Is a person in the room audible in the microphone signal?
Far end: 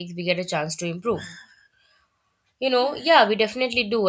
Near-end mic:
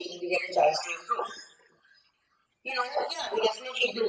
No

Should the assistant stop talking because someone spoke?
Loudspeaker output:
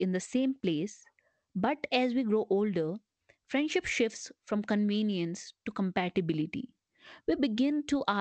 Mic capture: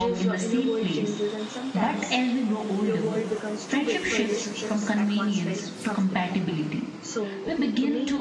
Yes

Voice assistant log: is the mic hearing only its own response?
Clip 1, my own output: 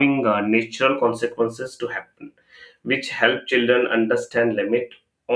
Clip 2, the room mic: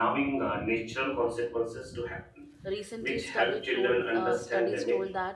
No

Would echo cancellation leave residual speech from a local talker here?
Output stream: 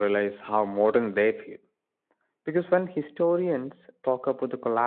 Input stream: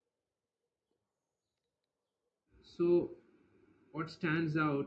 Yes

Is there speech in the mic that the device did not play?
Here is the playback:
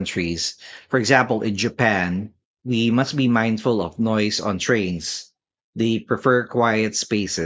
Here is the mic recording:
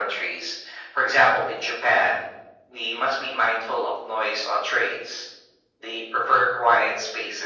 No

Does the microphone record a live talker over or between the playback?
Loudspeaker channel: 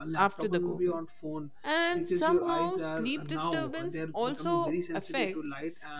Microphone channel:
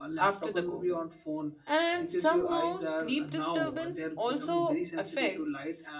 No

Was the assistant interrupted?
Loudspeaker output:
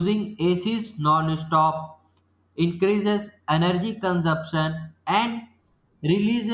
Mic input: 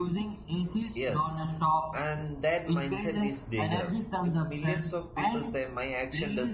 Yes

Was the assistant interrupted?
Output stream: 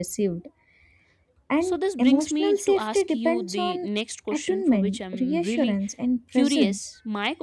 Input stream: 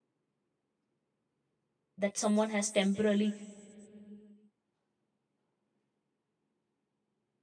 Yes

